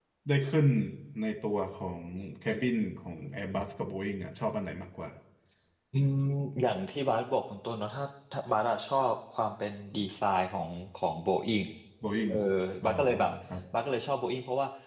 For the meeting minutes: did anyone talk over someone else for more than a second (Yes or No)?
No